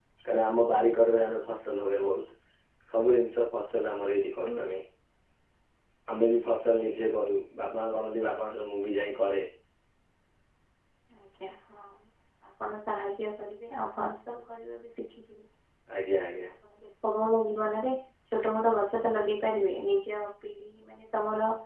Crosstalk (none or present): none